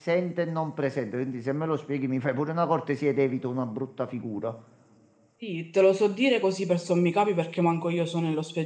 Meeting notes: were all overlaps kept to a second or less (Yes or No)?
Yes